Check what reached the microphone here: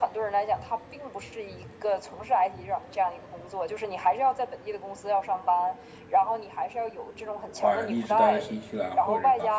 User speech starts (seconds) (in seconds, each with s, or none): 7.5 s